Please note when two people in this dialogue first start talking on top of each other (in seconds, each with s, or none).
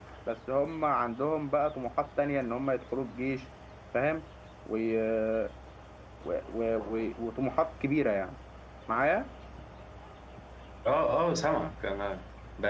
none